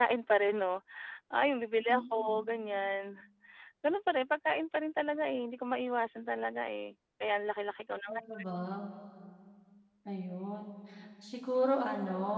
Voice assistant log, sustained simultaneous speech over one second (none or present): none